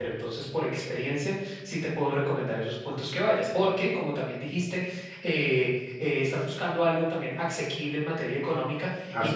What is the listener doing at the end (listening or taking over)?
listening